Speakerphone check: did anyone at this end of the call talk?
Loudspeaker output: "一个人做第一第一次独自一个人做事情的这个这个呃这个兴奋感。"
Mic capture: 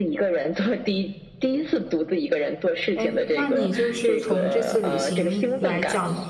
Yes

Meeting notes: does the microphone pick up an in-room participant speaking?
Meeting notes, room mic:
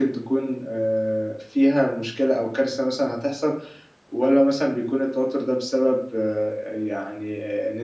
No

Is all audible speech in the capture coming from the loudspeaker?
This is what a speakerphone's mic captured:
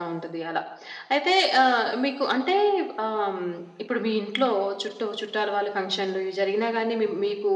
Yes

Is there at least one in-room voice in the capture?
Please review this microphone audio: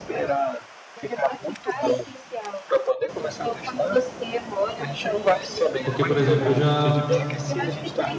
Yes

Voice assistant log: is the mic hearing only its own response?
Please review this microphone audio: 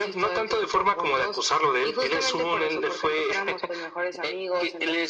Yes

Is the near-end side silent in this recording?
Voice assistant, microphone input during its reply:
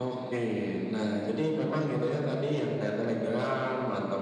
Yes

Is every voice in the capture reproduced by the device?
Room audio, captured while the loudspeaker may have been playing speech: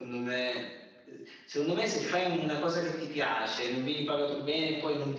No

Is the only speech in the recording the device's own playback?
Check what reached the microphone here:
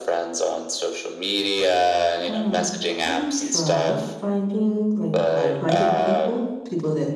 No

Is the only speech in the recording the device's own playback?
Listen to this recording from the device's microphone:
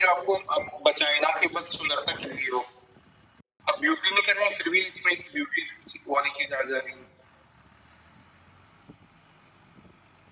Yes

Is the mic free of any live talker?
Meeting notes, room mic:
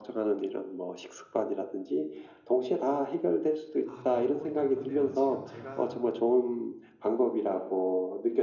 No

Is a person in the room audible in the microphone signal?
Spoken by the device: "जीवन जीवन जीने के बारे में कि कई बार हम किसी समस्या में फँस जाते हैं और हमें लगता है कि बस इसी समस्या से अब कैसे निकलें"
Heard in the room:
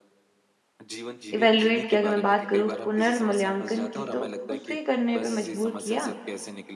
Yes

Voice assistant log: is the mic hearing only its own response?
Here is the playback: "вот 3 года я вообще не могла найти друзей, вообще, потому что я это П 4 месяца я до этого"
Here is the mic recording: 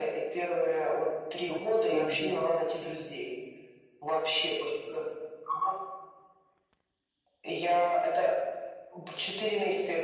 No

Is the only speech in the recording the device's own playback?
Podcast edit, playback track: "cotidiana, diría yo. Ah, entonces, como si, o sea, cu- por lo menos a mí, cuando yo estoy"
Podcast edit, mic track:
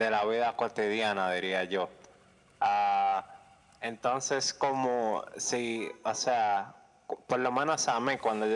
Yes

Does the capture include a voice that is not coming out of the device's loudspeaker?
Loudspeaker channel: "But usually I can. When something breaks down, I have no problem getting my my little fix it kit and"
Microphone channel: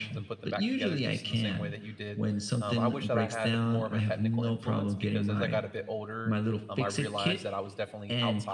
Yes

